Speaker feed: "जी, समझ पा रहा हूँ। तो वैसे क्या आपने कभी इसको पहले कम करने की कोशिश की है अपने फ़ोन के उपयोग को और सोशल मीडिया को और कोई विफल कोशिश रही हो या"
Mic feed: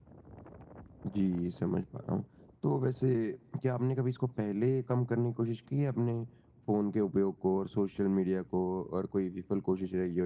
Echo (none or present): present